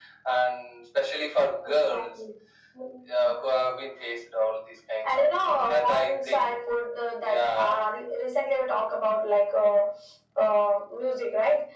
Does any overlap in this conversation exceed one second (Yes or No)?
Yes